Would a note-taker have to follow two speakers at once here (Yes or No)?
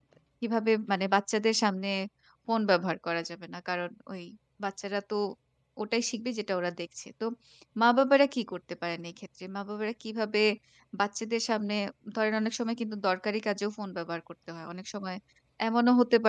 No